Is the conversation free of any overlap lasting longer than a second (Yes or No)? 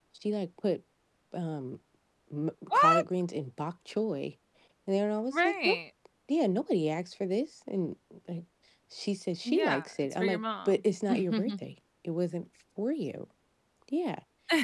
No